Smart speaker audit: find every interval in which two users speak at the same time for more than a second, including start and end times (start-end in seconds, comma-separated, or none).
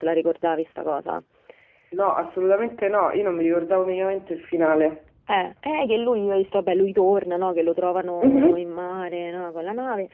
none